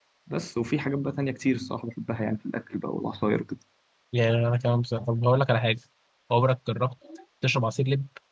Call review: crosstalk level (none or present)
none